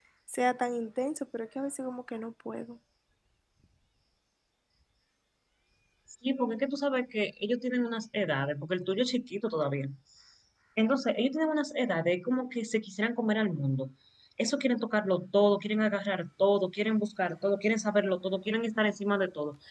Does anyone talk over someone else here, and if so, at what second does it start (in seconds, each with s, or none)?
none